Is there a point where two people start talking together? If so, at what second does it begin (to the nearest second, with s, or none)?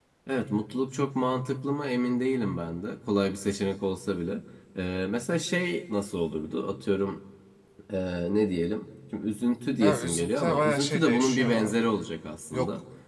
10 s